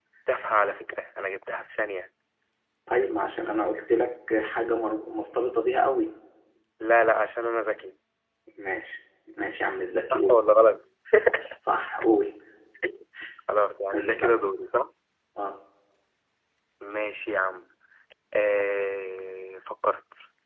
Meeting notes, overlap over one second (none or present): none